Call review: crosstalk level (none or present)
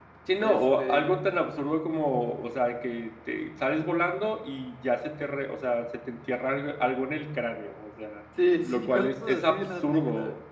present